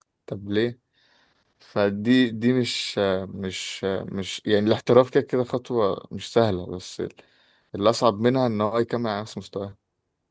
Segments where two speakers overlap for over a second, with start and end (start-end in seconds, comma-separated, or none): none